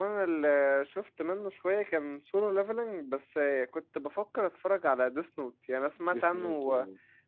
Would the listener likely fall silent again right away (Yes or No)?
Yes